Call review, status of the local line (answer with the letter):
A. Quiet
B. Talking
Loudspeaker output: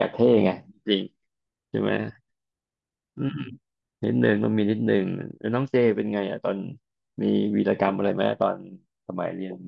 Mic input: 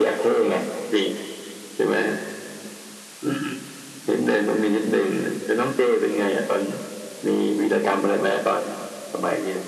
A